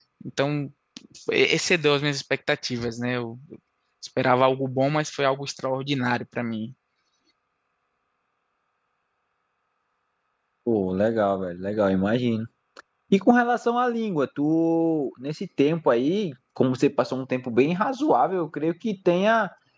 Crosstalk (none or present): none